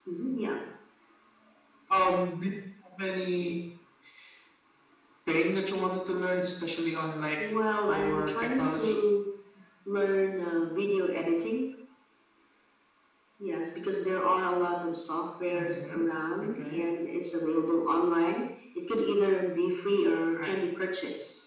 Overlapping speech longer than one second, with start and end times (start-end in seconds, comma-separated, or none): 7.4-9.0